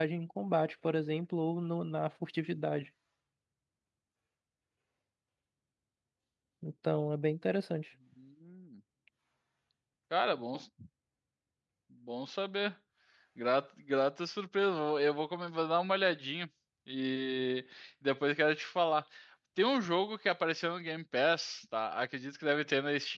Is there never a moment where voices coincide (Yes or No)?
Yes